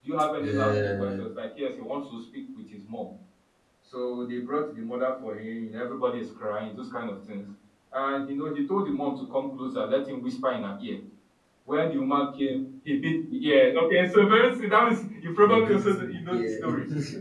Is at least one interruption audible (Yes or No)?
Yes